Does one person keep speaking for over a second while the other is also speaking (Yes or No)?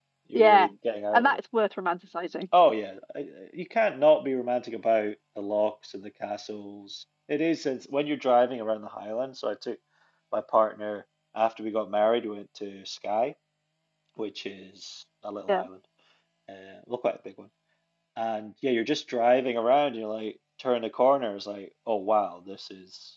No